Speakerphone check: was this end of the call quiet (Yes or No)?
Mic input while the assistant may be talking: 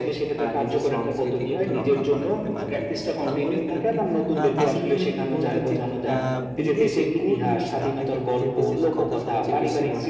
No